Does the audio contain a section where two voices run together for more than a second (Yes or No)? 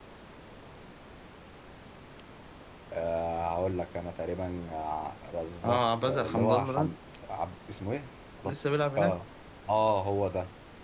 Yes